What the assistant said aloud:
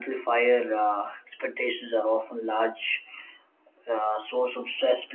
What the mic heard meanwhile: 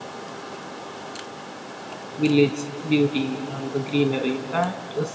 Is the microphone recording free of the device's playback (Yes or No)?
Yes